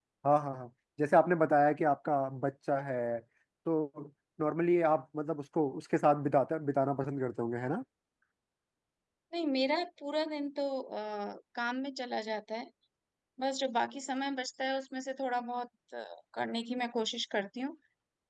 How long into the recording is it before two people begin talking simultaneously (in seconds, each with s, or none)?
none